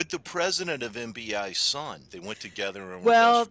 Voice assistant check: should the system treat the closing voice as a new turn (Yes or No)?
Yes